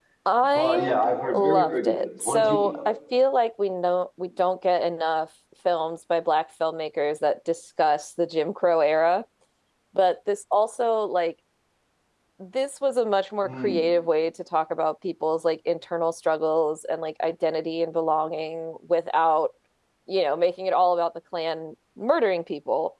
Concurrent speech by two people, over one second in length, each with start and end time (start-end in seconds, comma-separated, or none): 1.3-2.8